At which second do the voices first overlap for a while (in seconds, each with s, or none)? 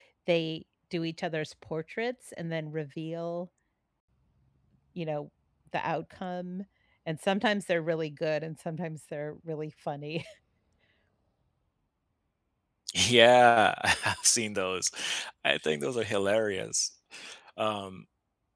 none